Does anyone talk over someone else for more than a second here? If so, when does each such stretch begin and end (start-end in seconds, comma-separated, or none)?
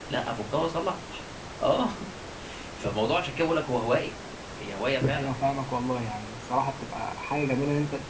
none